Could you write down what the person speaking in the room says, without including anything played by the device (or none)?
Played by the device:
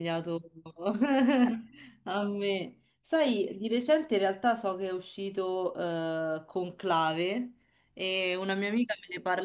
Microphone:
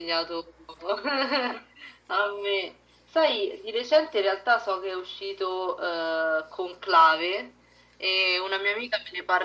none